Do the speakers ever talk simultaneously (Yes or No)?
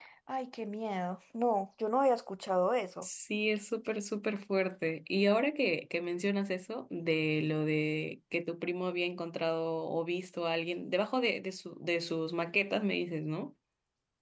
No